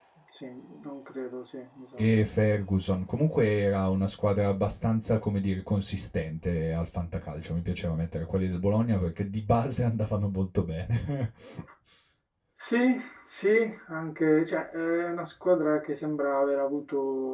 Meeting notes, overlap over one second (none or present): none